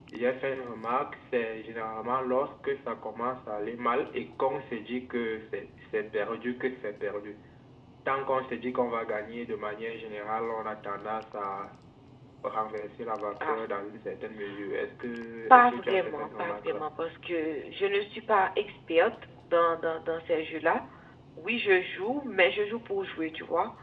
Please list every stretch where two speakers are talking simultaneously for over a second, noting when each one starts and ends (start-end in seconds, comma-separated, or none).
15.5-16.8